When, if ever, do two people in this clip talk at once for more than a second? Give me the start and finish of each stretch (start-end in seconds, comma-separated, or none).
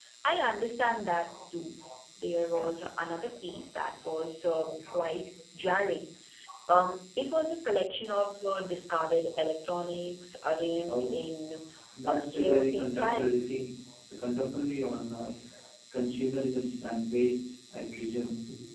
12.1-13.3